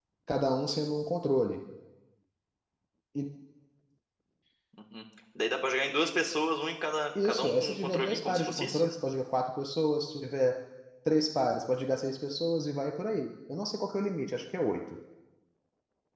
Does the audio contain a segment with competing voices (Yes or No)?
Yes